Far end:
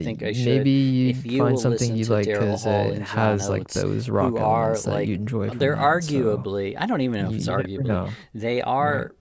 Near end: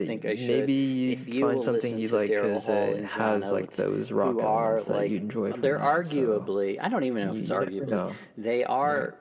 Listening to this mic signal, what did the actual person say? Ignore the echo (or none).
none